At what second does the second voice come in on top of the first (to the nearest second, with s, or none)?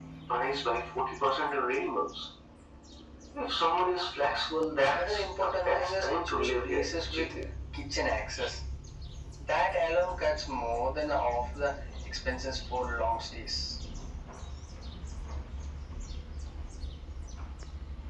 5 s